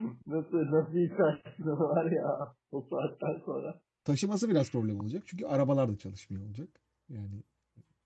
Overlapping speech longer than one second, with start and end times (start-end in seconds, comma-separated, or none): none